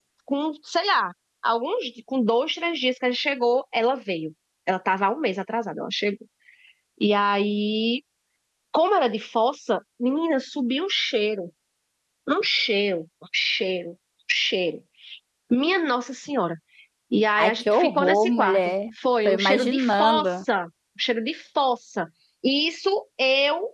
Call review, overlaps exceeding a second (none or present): present